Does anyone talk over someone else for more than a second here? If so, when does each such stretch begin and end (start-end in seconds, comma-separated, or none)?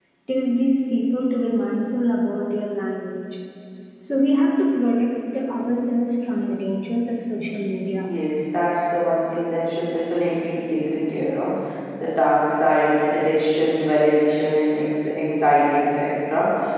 none